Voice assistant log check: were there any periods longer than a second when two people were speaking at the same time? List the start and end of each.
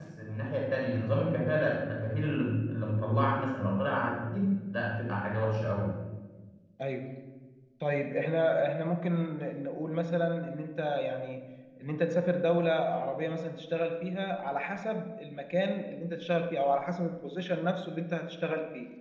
none

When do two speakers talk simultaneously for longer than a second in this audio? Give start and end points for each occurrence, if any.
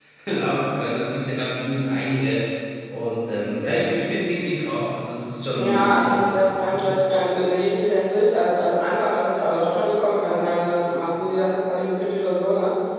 5.6-7.0

